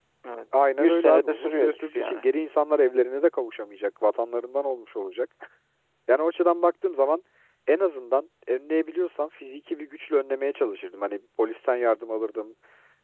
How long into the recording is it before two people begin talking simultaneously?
0.8 s

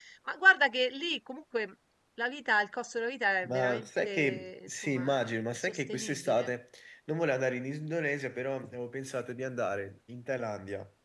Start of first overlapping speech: 3.4 s

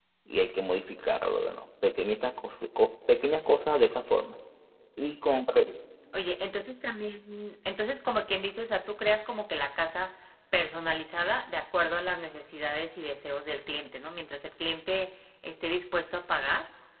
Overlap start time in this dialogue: none

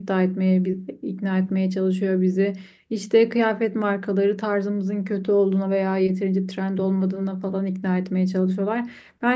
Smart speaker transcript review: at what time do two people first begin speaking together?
none

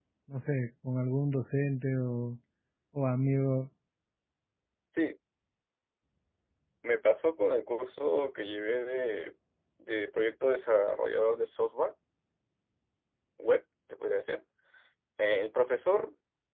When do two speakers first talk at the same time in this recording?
none

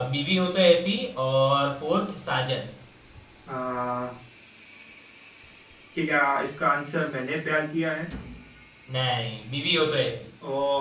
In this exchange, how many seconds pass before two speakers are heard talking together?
none

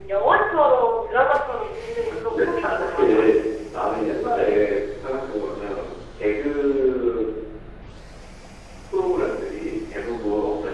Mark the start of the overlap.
2.0 s

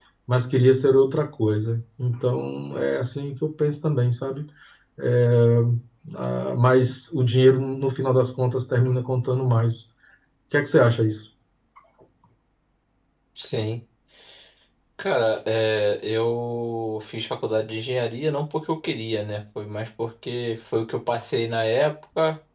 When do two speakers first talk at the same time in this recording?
none

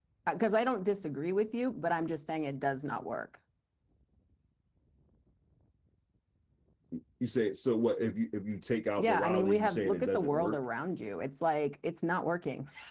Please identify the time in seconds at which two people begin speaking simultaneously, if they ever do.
9.0 s

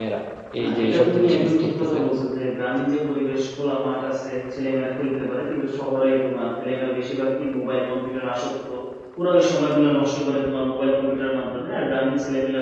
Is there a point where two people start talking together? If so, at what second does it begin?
0.6 s

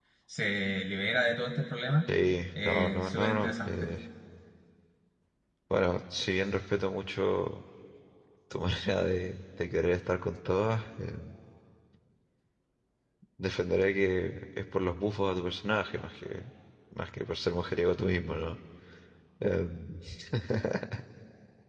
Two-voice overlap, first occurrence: 2.6 s

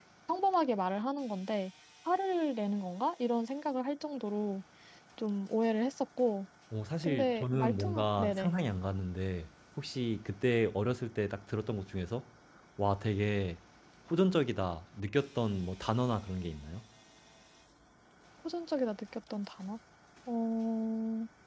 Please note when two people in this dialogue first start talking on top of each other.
7.0 s

